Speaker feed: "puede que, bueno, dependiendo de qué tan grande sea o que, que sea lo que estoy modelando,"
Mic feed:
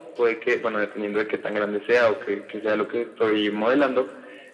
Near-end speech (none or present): none